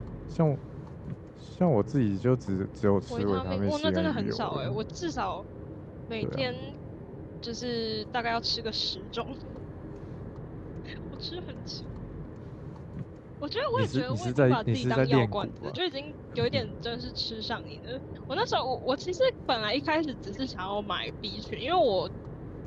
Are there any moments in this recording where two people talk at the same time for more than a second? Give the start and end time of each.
3.1-4.8, 13.7-15.8

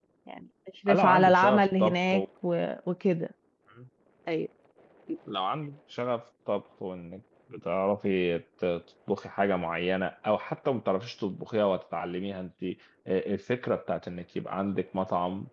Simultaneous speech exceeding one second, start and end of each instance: 0.9-2.1

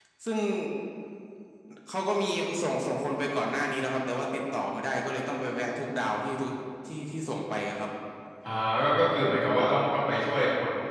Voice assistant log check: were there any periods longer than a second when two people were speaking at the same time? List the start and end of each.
none

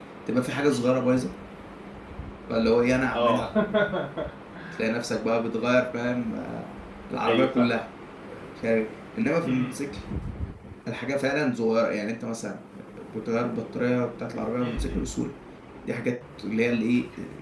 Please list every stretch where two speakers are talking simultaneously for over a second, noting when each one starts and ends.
none

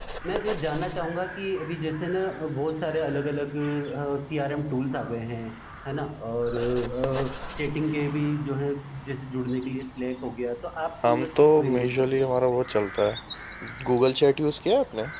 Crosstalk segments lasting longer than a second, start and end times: 11.0-12.4

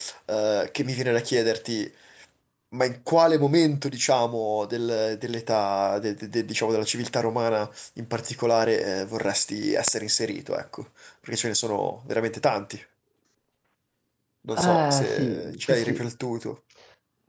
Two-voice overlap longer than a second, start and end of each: 14.5-16.0

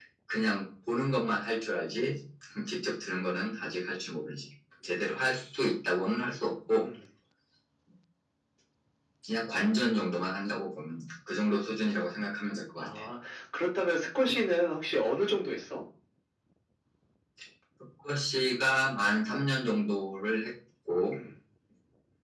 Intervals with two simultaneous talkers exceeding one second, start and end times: none

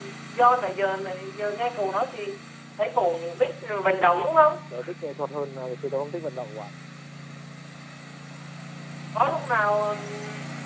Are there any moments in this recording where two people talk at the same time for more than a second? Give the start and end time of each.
none

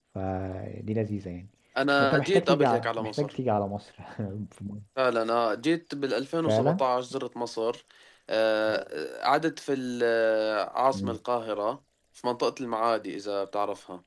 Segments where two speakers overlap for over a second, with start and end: 2.0-3.3

